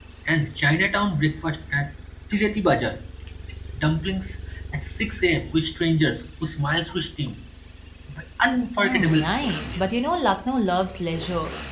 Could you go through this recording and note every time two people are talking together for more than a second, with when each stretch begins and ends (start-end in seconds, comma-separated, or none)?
8.8-10.0